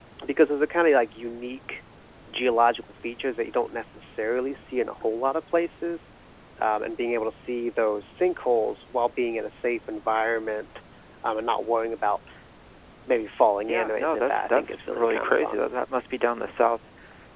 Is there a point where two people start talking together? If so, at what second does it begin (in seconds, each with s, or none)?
13.7 s